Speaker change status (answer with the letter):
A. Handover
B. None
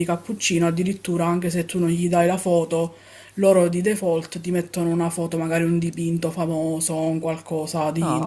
A